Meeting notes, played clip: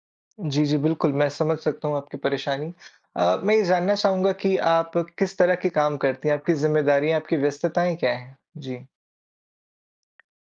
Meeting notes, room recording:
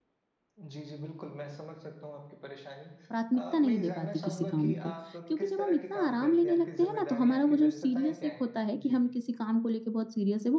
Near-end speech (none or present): present